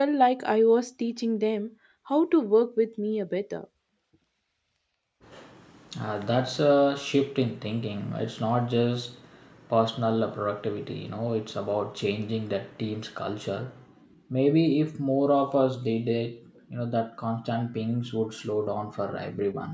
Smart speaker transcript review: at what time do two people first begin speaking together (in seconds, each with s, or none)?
none